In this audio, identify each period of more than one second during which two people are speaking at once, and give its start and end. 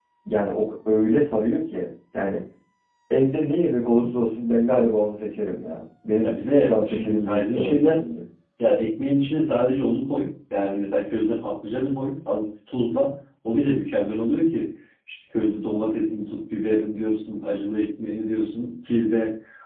6.2-8.0

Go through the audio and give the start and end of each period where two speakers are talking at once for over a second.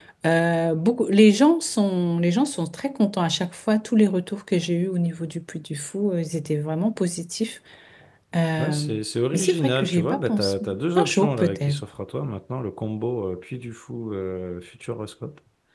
9.3-11.8

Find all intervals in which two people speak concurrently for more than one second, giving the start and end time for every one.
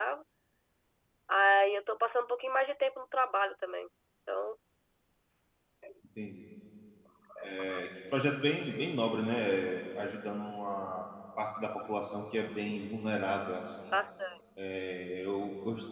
none

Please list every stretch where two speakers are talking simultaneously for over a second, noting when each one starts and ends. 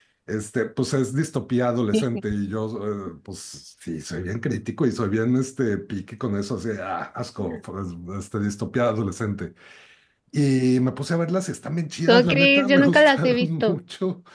12.1-13.8

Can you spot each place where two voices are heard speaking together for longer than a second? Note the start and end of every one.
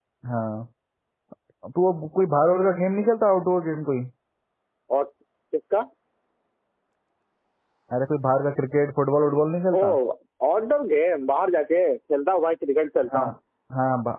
none

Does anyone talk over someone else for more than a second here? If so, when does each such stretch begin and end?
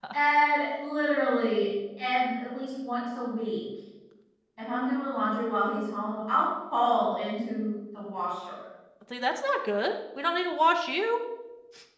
none

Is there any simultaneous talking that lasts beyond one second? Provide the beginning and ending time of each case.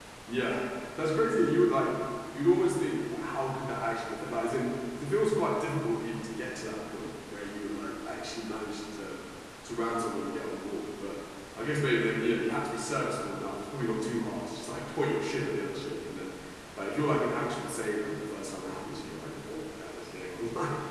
none

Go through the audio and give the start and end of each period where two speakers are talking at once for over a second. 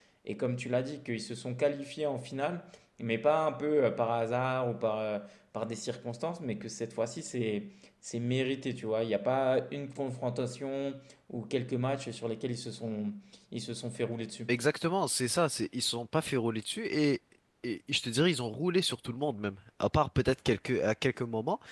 none

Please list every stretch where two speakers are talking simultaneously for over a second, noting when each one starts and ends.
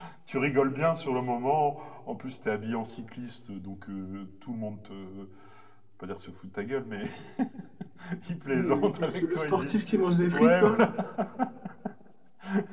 8.5-9.8

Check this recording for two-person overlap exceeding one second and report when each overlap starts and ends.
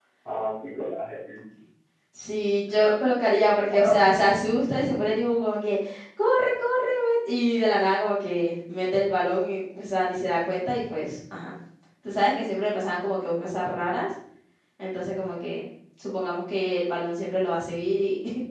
2.8-4.0

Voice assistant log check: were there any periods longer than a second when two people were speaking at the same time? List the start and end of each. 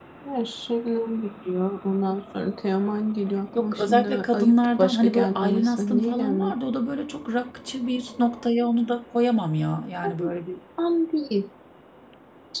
3.6-6.5

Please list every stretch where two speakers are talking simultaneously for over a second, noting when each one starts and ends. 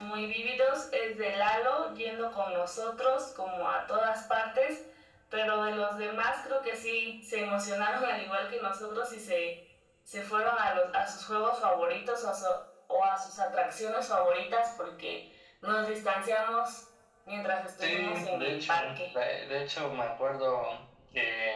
17.8-19.1

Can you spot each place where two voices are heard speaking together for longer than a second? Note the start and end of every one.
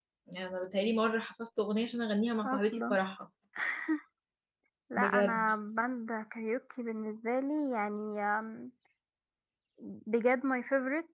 none

